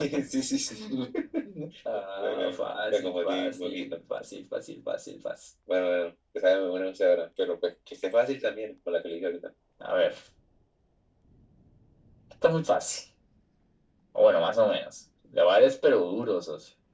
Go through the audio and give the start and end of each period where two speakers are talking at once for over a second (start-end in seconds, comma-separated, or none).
2.2-4.0